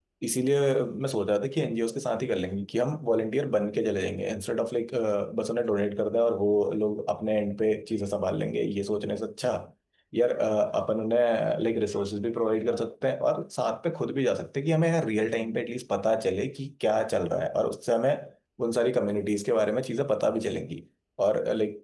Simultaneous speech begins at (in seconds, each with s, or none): none